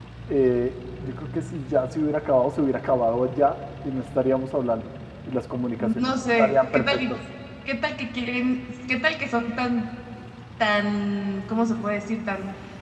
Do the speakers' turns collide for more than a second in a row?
Yes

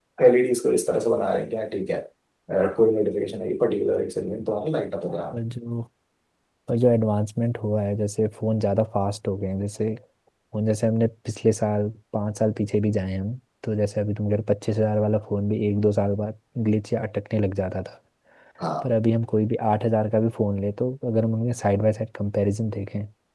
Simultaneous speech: No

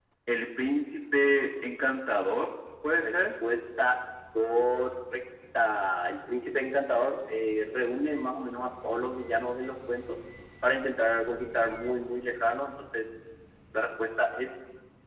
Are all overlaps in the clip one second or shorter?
Yes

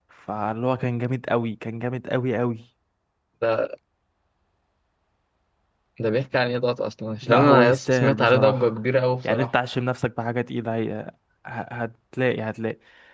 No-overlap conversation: No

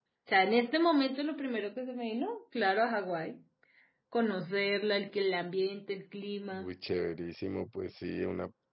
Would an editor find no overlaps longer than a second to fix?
Yes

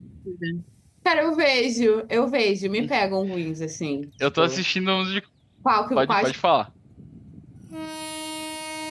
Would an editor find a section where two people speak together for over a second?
No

